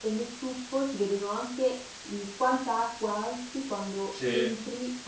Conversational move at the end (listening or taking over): listening